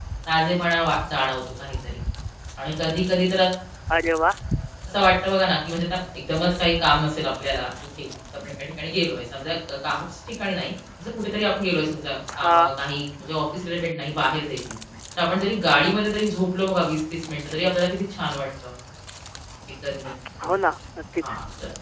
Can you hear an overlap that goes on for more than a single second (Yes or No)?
No